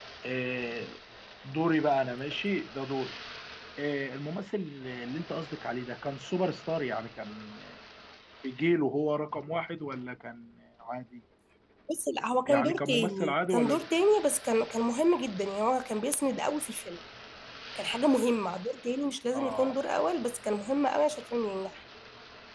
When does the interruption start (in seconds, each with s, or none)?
12.5 s